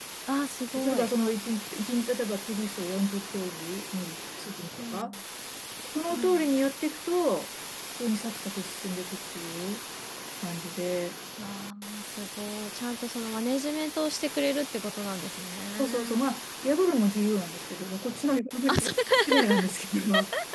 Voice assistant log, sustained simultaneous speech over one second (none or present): none